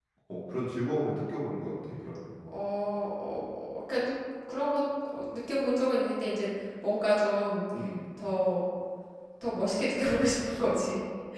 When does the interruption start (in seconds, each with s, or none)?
none